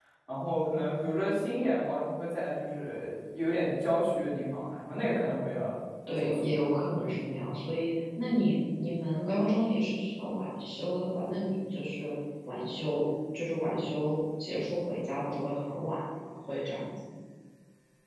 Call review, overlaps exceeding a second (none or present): none